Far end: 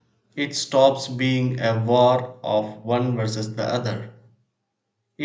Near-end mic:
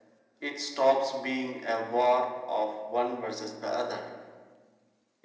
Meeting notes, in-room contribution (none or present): none